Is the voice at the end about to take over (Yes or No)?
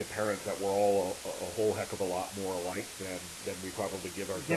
Yes